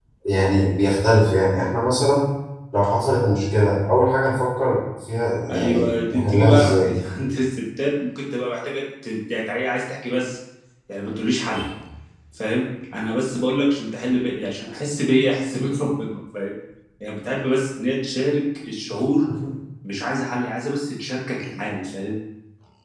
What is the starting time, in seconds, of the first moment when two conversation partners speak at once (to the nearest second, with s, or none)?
5 s